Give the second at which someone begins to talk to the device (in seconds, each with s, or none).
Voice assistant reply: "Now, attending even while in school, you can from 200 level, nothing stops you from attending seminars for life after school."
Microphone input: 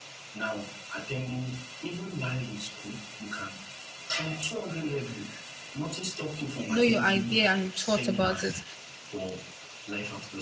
6.7 s